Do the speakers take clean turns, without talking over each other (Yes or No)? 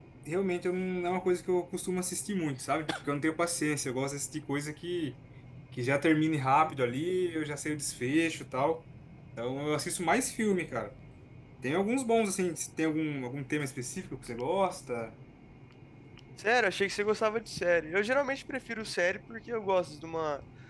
Yes